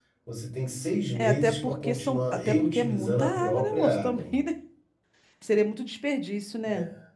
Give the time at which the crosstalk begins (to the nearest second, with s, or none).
1 s